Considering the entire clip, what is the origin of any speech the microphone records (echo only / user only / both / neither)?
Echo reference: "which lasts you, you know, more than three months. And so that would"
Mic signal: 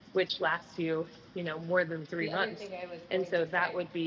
both